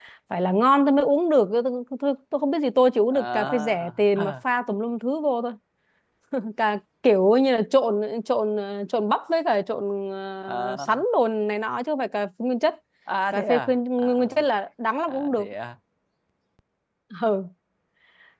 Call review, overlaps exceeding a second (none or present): present